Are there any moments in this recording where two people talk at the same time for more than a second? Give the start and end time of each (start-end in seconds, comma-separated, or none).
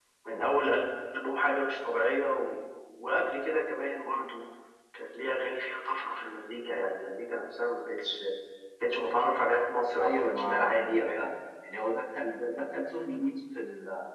10.0-11.3